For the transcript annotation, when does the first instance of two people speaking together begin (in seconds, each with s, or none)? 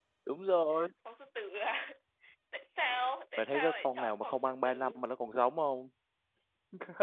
3.4 s